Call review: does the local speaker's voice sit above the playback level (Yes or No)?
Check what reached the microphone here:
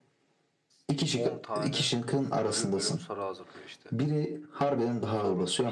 No